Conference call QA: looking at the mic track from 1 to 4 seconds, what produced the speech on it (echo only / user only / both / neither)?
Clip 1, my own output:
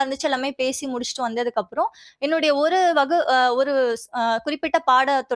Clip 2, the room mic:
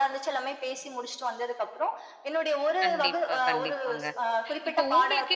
both